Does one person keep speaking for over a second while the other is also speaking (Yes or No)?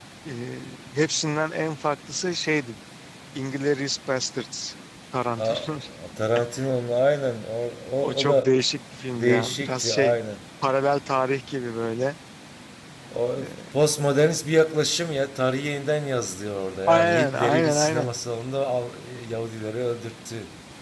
Yes